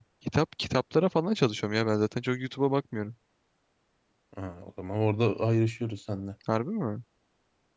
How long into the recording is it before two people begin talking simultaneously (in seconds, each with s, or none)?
none